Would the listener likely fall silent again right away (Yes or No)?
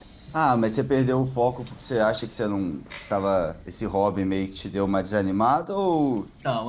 No